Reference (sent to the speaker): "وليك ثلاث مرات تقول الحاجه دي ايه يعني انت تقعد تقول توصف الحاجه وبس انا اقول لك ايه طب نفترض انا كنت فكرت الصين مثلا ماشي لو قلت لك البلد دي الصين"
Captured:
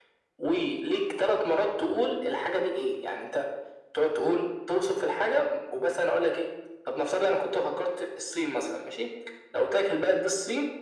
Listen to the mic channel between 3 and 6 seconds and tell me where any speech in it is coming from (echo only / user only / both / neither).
echo only